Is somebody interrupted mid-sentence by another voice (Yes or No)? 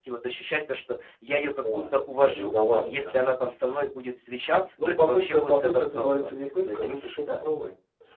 Yes